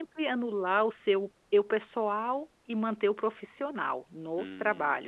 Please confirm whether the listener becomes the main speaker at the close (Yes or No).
Yes